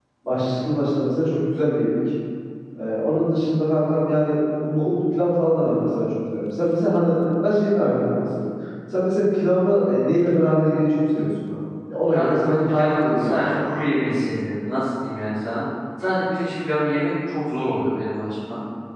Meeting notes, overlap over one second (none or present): present